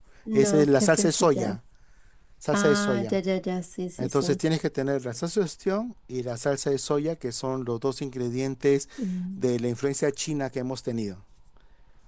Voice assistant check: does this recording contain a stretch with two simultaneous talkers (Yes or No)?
Yes